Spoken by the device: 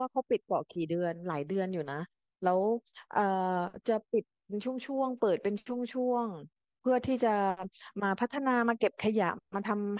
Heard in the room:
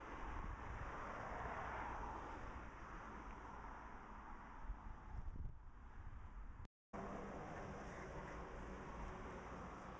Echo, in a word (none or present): none